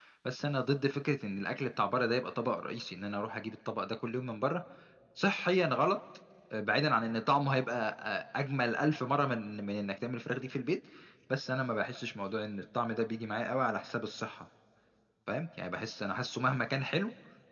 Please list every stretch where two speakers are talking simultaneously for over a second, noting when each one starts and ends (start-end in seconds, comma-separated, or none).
none